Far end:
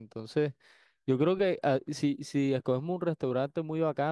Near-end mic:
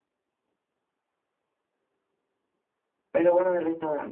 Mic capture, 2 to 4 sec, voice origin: user only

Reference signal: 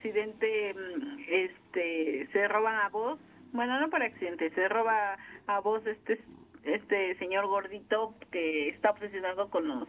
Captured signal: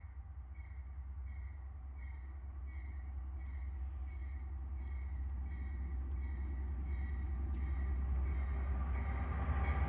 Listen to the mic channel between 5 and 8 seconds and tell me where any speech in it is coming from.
neither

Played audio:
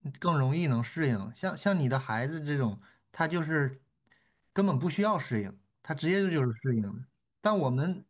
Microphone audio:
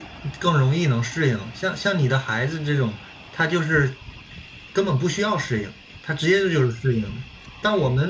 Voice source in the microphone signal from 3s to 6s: echo only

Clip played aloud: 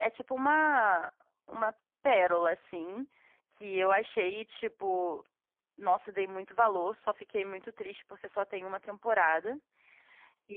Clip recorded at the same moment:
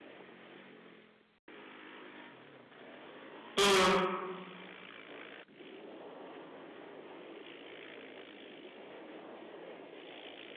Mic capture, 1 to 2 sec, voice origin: neither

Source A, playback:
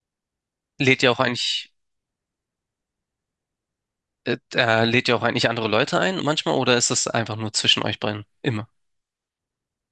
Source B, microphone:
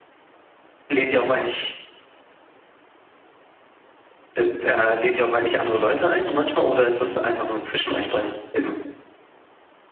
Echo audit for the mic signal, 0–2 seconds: echo only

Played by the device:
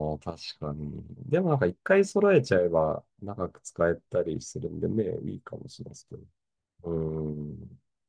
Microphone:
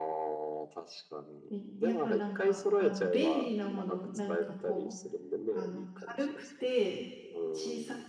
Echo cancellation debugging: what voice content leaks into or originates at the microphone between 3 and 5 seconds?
both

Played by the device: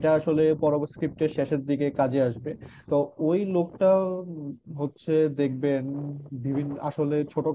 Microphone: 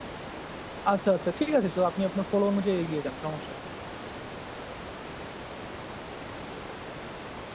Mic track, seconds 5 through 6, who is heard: neither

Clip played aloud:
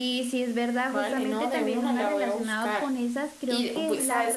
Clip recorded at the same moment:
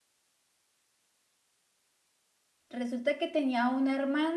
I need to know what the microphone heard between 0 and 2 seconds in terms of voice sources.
neither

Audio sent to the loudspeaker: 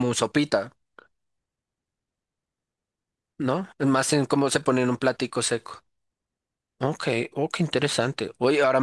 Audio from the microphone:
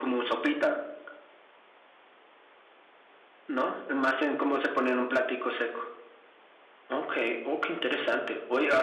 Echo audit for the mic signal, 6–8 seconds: echo only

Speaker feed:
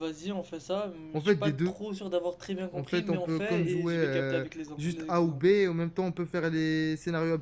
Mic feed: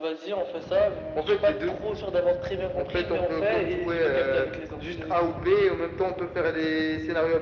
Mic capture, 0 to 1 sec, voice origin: echo only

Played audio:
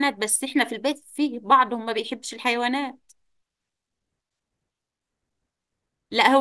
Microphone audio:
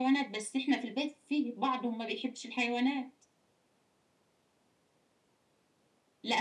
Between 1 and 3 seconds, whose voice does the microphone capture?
echo only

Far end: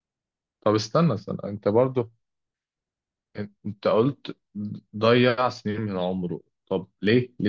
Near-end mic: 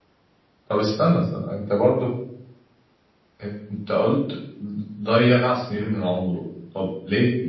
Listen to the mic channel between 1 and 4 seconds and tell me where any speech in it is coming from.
echo only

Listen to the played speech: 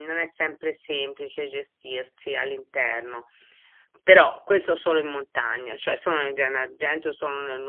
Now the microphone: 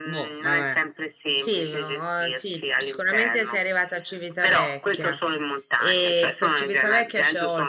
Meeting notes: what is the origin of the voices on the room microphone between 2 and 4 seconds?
both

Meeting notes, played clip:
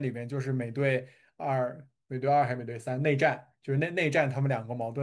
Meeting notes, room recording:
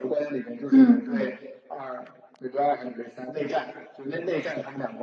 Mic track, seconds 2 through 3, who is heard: echo only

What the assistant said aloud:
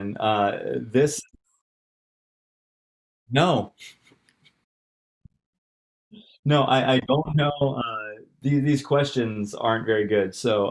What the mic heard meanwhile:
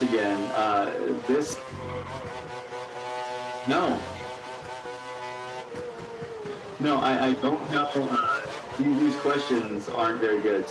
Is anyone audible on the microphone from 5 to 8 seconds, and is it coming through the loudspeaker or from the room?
echo only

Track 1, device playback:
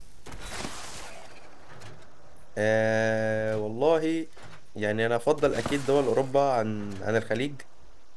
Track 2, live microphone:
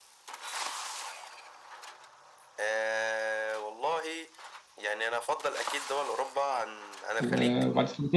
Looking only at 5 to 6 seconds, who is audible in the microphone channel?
echo only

